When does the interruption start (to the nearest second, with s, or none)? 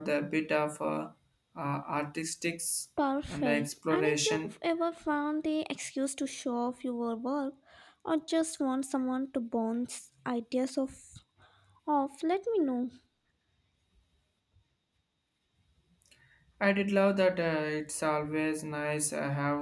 3 s